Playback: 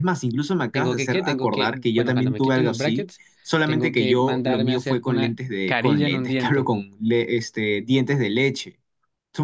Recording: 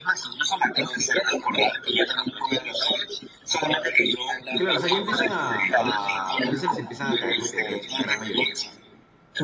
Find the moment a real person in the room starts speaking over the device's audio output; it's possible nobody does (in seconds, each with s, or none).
4.5 s